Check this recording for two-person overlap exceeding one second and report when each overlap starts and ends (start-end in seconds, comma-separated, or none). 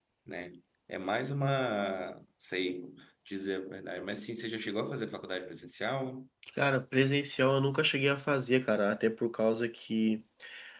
none